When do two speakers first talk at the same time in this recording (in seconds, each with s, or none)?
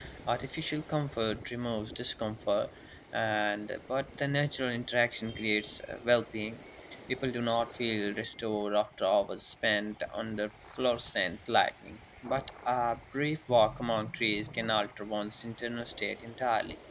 none